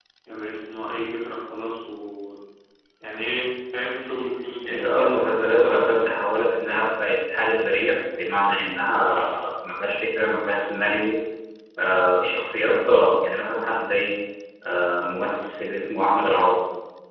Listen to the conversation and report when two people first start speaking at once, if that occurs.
4.6 s

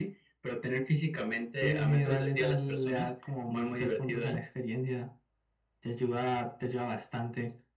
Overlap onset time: 1.6 s

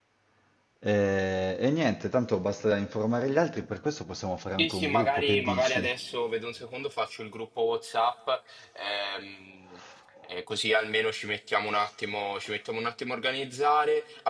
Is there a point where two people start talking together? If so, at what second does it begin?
4.6 s

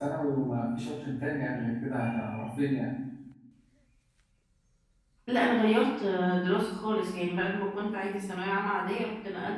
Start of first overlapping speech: none

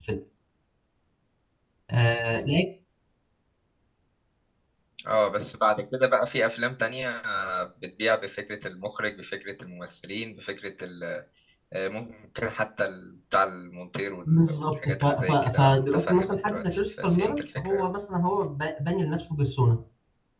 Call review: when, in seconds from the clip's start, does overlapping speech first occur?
14.3 s

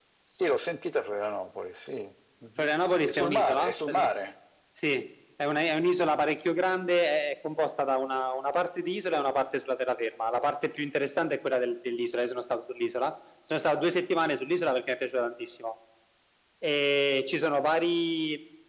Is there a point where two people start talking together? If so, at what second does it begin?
2.6 s

